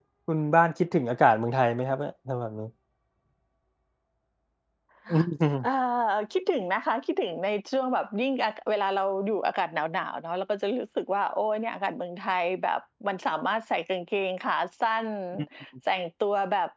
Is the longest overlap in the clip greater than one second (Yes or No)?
No